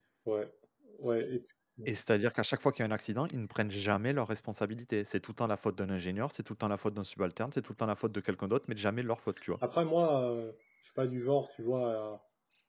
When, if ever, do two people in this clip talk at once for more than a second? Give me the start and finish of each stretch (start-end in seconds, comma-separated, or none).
none